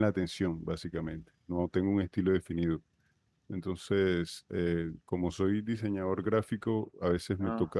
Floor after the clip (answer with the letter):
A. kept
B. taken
A